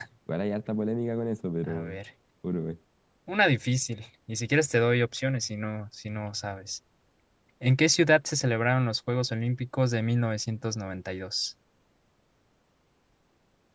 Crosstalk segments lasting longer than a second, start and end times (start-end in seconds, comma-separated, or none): none